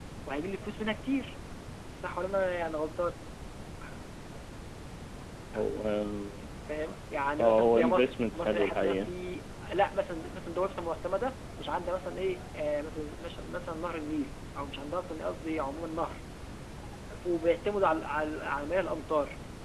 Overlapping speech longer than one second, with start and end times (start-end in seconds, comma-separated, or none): 7.4-9.1